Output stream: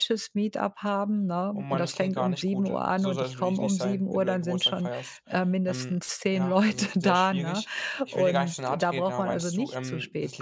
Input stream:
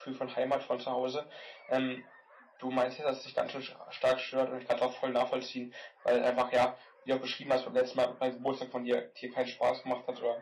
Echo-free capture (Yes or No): Yes